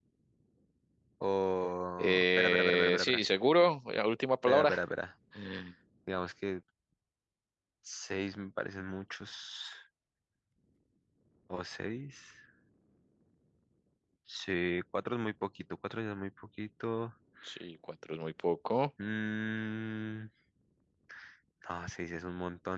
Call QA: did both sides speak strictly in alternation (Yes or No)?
No